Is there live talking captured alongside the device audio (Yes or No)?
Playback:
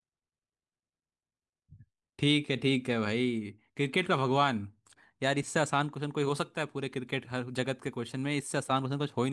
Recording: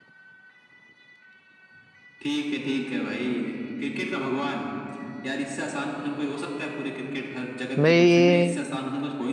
Yes